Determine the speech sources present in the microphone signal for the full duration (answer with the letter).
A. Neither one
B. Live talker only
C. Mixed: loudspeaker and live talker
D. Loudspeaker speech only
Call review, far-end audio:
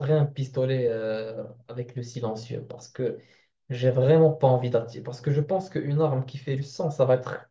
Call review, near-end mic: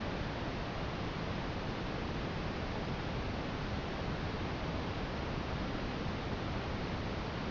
A